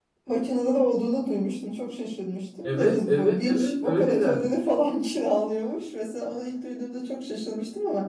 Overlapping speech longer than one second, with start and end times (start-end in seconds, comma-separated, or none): 2.6-4.4